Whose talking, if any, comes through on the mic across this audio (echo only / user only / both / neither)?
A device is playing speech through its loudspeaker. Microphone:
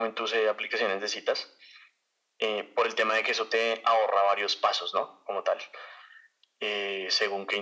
echo only